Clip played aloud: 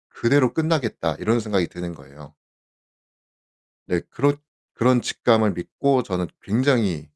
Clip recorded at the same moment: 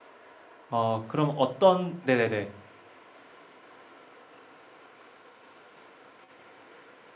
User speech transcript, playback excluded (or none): 아 그럼 어떤 네네네.